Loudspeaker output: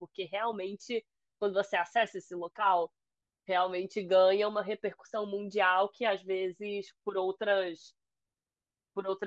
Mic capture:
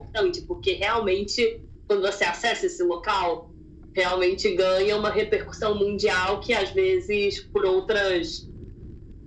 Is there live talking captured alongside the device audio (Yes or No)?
No